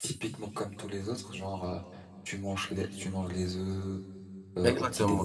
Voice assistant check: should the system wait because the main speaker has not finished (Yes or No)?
No